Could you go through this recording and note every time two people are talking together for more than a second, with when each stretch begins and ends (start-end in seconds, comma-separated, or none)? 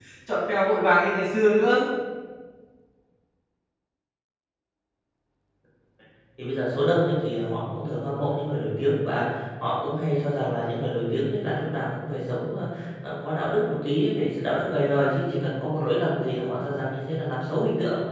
none